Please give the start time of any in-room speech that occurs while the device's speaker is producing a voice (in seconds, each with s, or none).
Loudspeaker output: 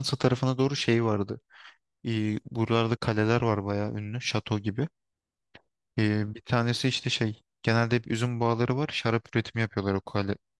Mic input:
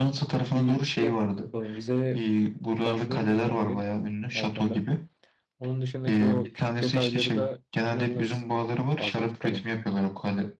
0.5 s